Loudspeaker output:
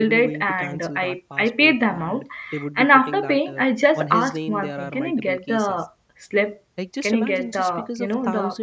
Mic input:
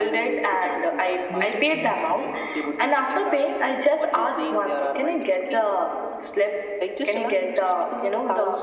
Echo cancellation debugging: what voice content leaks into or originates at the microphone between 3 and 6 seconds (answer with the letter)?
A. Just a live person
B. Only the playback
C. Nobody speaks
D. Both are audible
B